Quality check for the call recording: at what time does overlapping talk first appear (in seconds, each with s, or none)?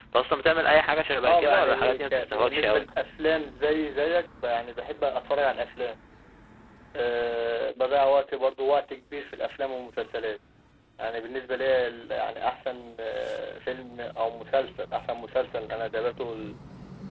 1.2 s